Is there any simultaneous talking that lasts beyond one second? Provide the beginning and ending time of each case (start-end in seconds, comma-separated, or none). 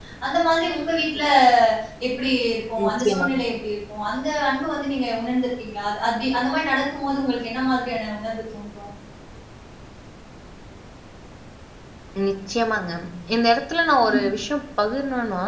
none